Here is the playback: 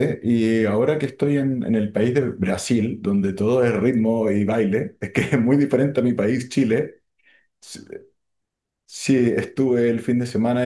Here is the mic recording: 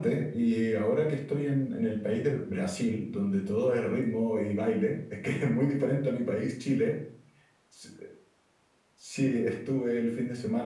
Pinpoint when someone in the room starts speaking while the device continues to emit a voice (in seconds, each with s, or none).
none